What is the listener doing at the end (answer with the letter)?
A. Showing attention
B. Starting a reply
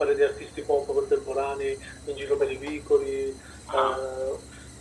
A